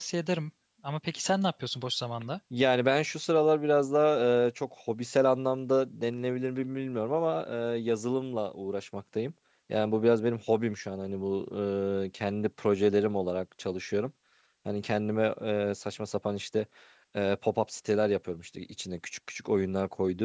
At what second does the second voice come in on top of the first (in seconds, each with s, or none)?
none